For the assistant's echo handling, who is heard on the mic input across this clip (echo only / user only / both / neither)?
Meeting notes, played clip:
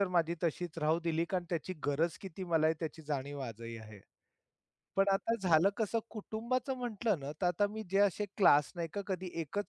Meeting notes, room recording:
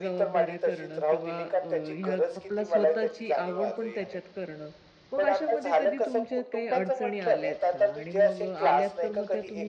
both